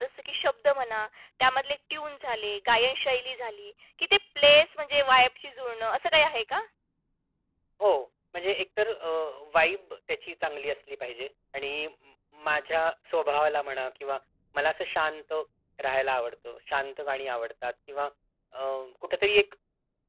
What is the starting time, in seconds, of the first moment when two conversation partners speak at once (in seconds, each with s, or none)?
none